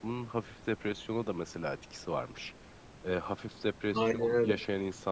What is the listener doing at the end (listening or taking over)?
listening